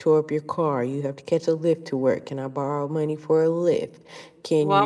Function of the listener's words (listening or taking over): taking over